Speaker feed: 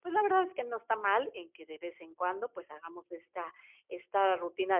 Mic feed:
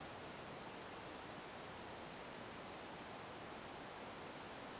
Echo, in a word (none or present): none